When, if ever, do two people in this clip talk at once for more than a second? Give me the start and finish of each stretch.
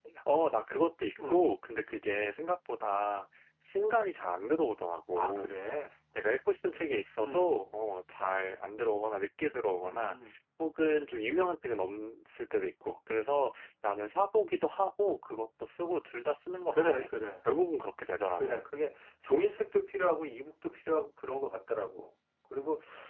none

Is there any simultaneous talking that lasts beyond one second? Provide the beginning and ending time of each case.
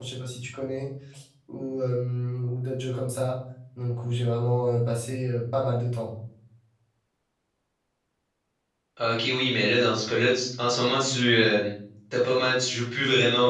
none

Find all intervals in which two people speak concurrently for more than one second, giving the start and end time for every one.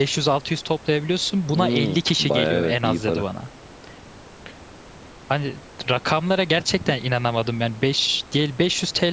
1.5-3.2

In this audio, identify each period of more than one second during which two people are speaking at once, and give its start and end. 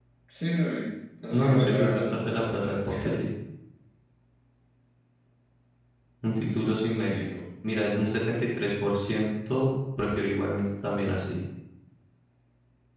1.3-2.7

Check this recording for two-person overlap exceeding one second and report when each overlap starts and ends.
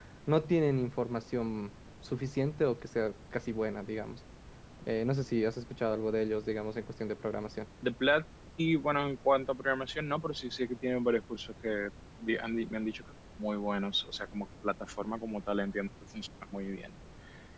none

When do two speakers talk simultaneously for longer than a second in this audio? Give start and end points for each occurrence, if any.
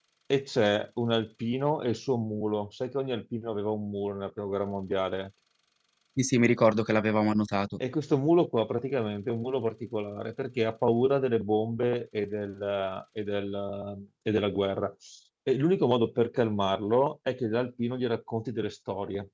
none

